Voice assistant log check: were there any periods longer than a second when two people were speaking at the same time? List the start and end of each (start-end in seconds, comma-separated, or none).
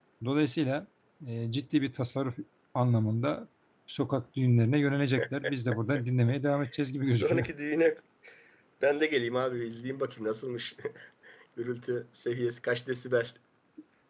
none